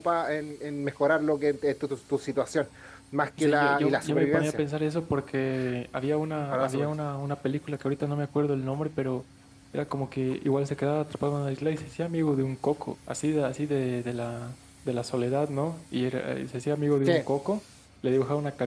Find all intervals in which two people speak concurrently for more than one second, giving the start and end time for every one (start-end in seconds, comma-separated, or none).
3.4-4.6